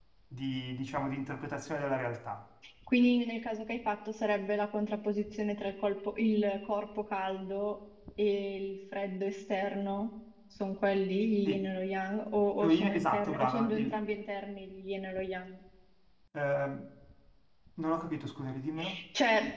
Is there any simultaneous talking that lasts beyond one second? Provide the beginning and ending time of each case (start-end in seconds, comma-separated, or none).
12.6-13.9